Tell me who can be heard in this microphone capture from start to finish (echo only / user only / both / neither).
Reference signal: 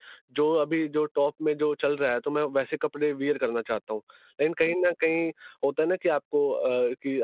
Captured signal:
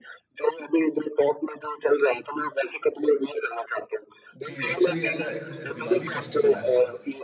both